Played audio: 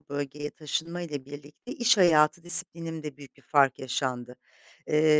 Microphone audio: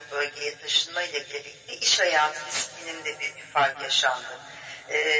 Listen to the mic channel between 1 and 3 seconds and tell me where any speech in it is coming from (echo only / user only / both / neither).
echo only